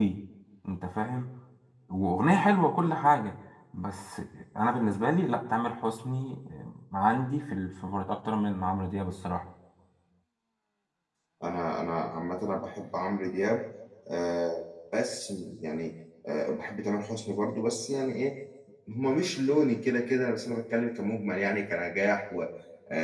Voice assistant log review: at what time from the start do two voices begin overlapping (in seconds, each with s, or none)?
none